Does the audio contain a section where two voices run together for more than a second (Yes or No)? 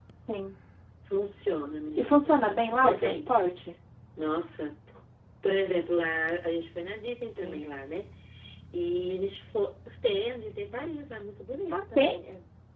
Yes